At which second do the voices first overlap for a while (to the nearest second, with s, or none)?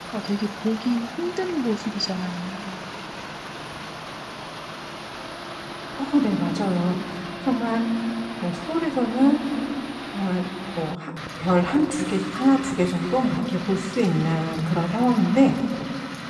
none